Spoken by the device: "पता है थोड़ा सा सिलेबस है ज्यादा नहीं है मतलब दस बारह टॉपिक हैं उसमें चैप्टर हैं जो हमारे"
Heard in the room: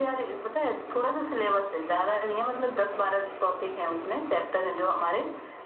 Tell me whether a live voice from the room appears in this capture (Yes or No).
No